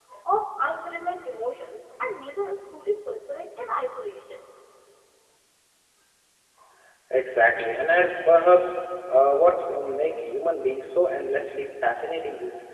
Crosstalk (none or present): none